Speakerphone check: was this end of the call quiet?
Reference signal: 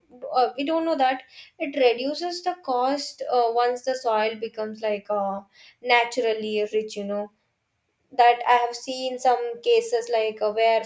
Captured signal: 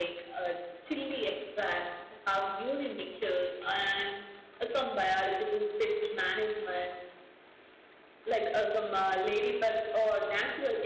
No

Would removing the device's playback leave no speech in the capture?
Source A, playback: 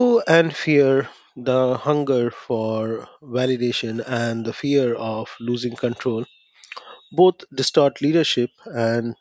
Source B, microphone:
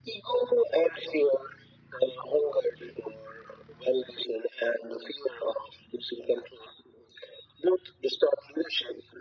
Yes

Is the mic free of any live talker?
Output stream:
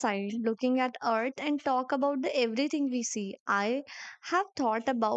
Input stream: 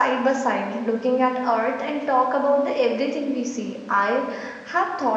Yes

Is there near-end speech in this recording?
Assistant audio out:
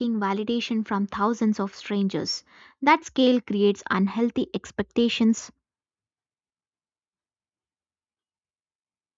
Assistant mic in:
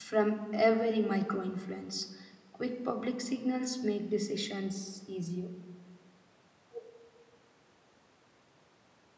Yes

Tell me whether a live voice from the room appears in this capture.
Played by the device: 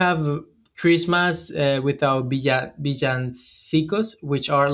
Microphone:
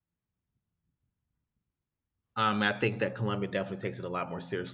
Yes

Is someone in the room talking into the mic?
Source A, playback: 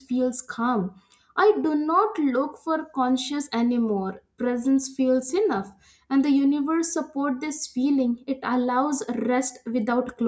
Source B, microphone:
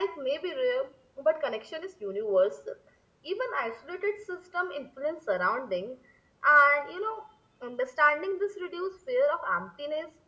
Yes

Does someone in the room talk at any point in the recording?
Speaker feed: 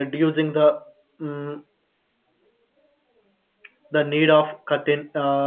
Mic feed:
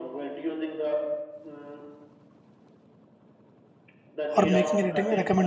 Yes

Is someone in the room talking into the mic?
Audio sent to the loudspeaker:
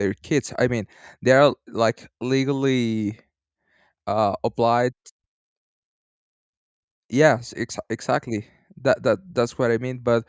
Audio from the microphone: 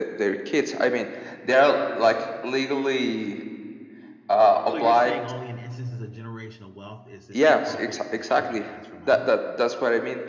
Yes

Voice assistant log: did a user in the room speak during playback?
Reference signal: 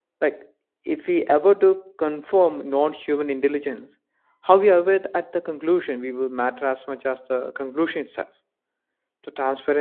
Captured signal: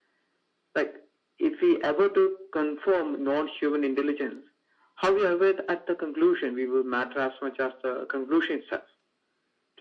No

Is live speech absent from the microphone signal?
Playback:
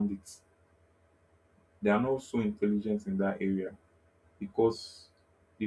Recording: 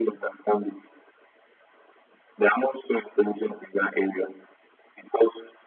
Yes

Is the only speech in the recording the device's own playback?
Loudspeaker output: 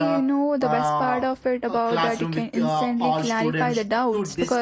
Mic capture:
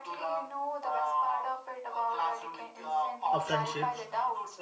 No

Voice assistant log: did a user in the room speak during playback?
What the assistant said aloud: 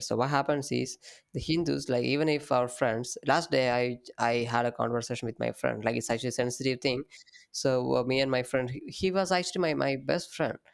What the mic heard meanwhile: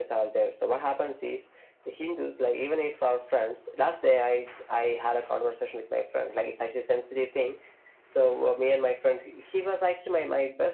No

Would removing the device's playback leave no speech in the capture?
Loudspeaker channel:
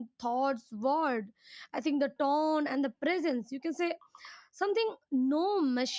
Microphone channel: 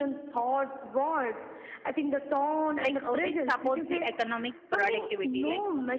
No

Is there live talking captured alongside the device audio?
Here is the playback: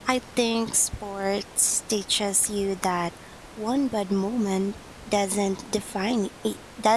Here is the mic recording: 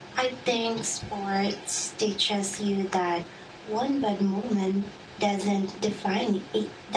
No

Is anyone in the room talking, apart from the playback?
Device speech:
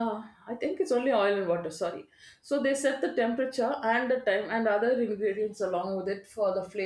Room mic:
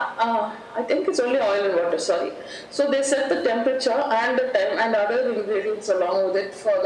No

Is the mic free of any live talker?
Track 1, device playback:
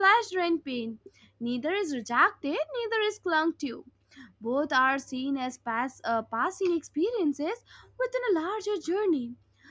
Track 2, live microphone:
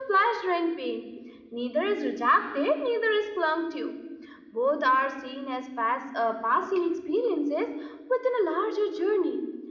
Yes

